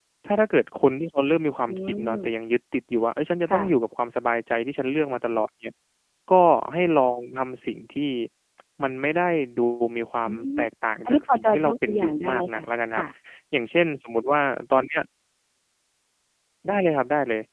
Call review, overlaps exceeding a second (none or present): present